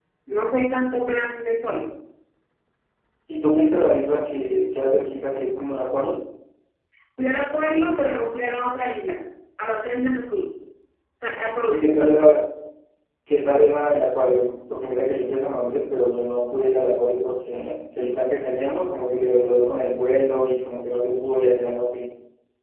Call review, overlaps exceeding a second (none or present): none